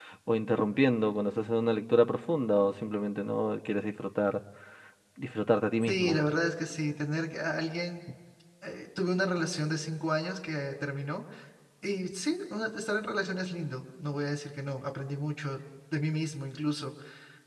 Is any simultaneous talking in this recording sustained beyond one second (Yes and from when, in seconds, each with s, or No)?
No